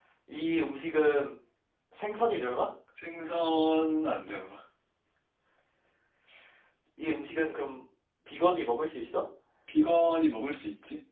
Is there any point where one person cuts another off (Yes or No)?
No